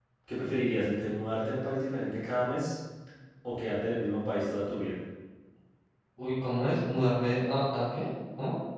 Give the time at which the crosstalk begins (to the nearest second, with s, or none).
none